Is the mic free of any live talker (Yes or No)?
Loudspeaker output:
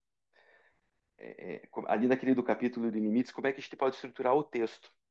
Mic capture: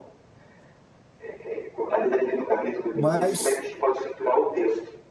No